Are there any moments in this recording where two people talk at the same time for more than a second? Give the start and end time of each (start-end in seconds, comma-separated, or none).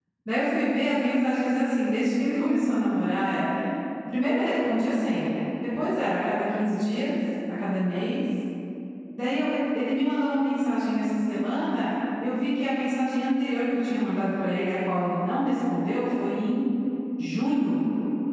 none